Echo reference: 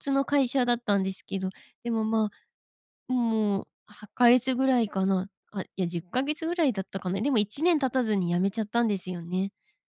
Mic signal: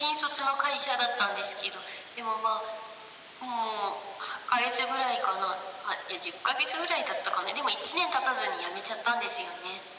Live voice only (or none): none